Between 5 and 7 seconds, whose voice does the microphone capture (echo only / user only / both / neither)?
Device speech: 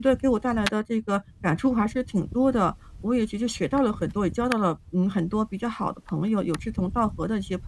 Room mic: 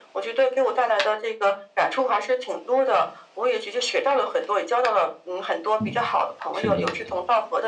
both